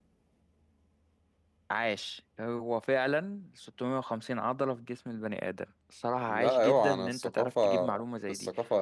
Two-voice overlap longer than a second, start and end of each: 6.3-7.9

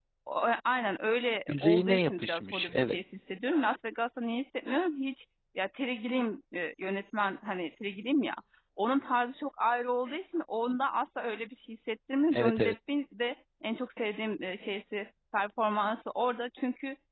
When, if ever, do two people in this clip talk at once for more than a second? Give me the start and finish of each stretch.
1.5-3.0

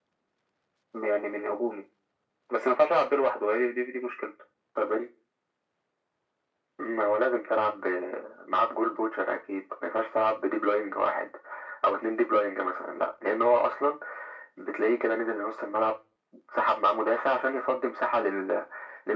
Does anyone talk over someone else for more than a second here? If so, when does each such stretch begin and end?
none

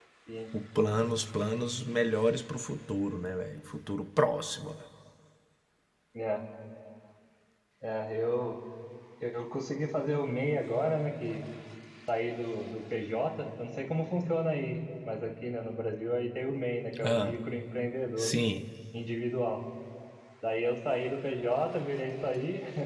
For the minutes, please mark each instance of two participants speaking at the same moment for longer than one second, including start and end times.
none

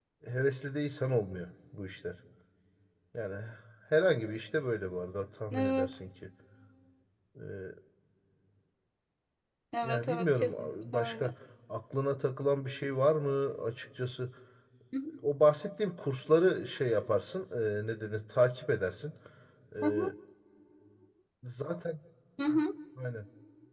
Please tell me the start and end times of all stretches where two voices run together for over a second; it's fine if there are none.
9.8-11.3

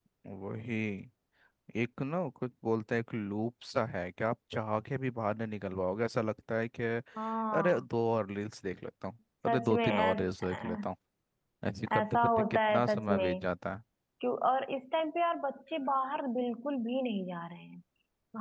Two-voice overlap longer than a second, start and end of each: 9.5-10.9, 11.9-13.4

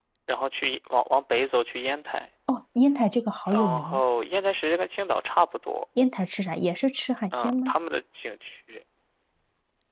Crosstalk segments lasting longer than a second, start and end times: none

